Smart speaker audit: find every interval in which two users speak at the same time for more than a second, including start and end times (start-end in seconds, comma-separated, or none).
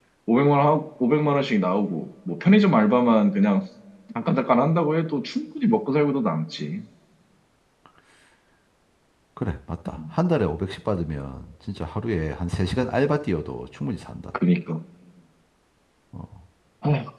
none